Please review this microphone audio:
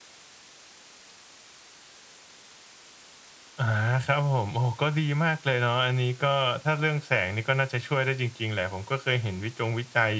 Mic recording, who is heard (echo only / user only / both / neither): user only